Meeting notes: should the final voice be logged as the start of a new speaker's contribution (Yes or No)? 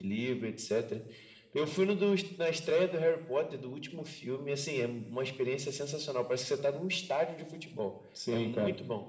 Yes